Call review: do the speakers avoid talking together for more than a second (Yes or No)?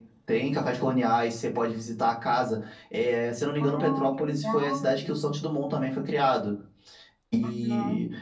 No